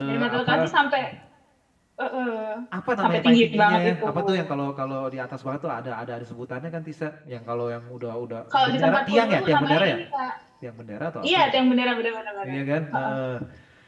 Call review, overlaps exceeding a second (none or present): present